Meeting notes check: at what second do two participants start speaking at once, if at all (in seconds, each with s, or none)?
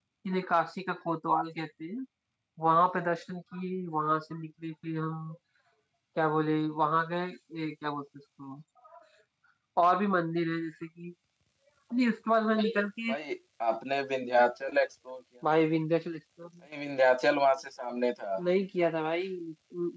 none